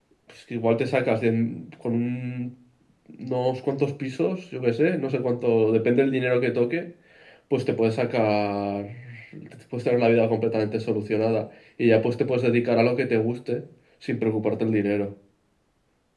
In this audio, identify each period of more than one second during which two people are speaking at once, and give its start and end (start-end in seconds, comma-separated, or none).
none